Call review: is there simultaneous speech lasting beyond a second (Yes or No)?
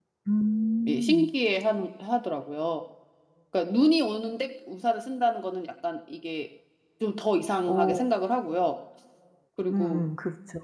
No